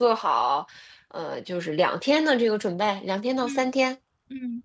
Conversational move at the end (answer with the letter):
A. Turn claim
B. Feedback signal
A